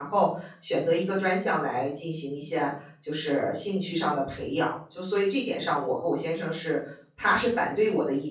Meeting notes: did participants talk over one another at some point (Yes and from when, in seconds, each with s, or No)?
No